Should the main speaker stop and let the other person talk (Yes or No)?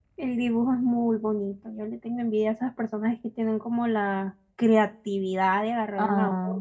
No